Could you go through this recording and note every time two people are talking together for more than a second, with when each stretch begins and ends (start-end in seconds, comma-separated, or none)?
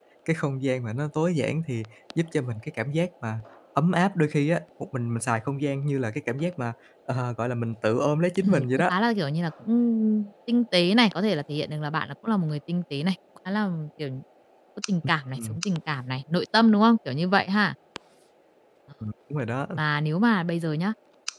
none